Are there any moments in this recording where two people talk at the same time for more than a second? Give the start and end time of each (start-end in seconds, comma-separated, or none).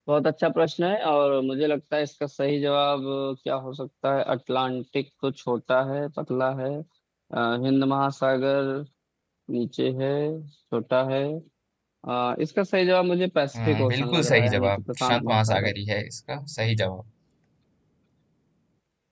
13.6-15.7